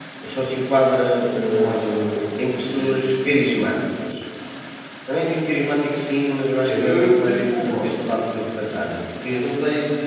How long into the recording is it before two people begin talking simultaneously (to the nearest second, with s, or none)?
1 s